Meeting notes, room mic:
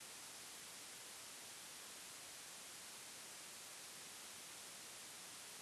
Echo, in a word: none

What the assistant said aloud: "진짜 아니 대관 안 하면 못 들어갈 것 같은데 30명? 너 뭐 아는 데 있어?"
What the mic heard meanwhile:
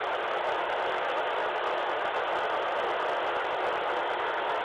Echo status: none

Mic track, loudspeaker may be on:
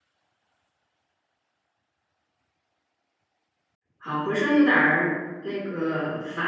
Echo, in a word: none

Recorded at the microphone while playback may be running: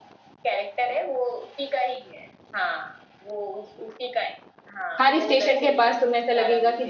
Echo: present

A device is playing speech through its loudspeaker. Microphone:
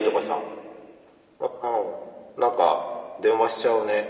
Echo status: present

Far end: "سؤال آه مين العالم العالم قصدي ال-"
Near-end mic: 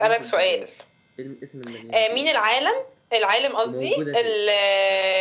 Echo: present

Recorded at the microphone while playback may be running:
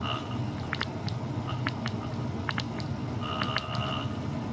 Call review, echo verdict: none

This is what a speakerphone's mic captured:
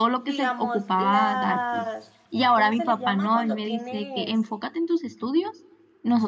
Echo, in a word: present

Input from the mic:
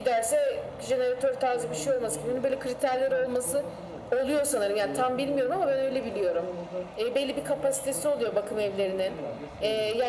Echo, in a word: present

